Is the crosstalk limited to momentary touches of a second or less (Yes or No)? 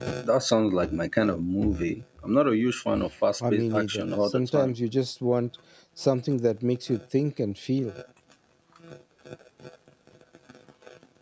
No